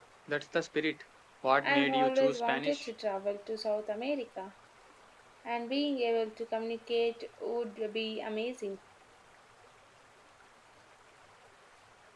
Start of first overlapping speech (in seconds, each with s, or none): 1.6 s